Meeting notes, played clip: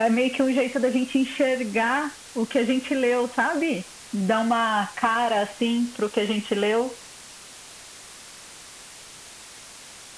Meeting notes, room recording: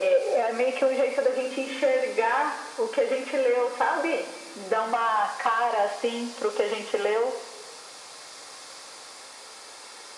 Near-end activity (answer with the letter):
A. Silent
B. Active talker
A